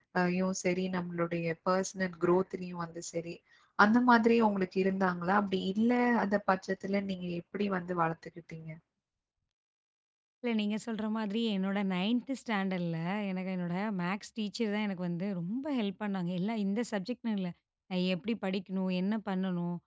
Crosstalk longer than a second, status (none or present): none